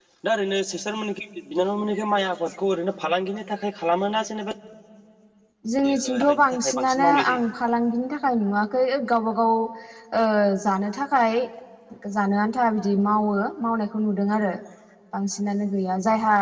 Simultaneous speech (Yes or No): Yes